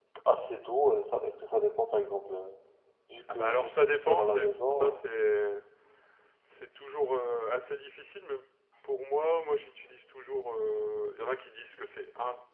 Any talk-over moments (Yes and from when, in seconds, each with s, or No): Yes, from 3.3 s